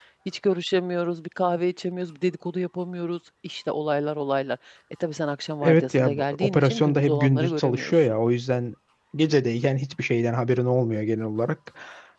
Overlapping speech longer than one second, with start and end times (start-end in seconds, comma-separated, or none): 5.6-8.2